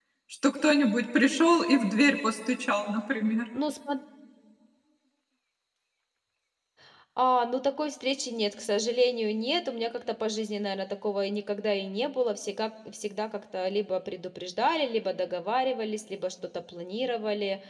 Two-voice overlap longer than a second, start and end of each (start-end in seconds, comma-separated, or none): none